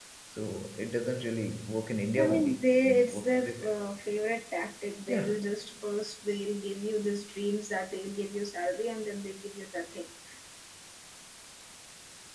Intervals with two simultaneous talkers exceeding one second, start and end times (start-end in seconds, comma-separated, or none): 2.2-3.7